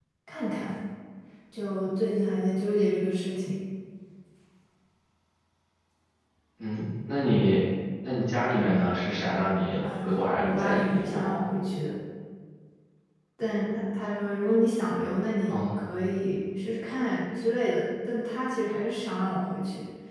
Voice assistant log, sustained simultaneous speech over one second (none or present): present